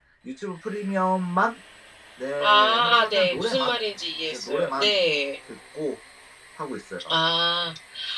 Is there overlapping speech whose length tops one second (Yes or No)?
Yes